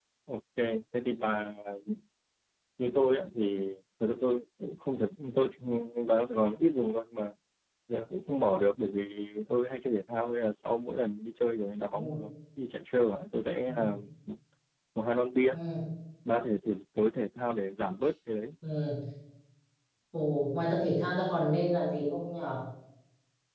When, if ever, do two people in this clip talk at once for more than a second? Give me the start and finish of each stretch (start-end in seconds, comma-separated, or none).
none